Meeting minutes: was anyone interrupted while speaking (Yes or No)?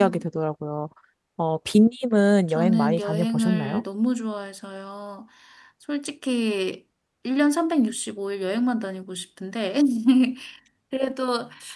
Yes